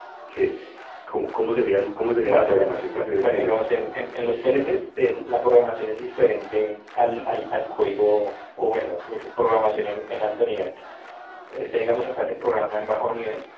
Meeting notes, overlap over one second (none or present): present